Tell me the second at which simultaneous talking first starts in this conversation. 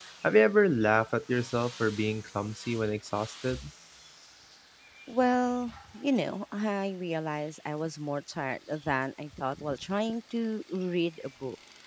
none

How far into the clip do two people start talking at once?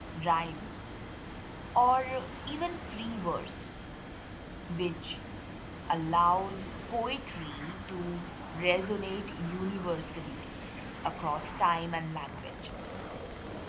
none

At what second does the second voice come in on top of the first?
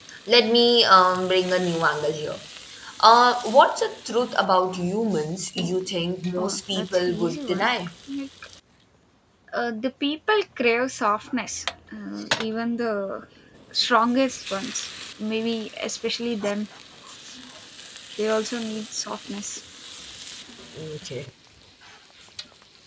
6 s

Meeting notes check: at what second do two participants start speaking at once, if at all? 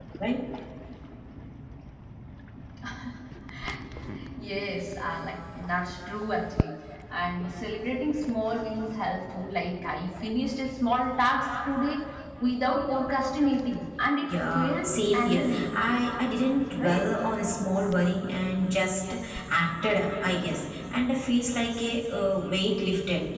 14 s

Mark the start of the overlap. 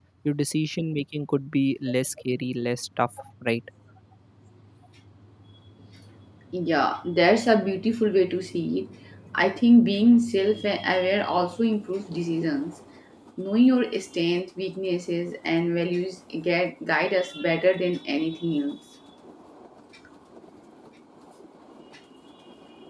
none

